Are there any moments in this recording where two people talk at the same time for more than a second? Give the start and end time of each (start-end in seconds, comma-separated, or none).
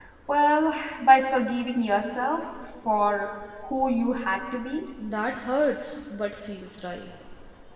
none